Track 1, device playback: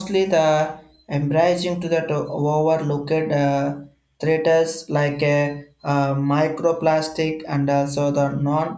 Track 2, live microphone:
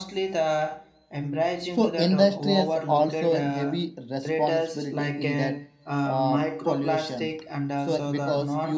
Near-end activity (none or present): present